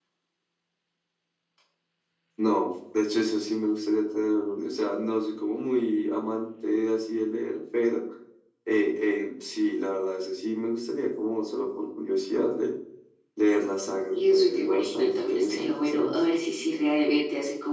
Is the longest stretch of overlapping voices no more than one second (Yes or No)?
No